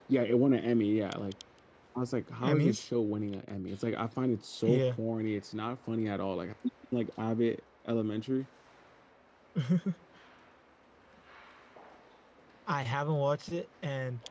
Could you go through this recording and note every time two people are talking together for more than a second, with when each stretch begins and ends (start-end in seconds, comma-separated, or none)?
none